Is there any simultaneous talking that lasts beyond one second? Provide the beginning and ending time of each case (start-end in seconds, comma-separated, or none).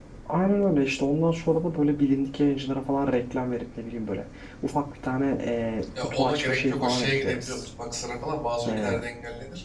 6.0-7.7